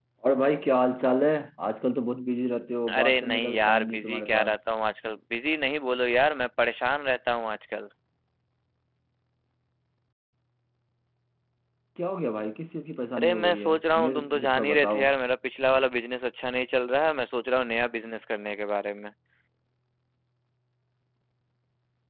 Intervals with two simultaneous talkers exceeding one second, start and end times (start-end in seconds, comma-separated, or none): 3.0-4.5, 13.2-15.0